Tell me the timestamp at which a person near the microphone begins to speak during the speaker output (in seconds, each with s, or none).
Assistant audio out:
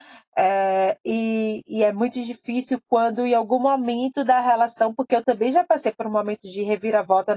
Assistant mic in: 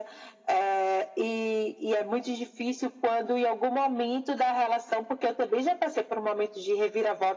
none